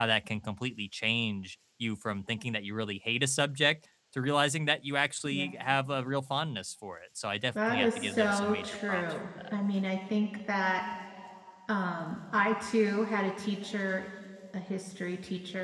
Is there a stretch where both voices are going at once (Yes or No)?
Yes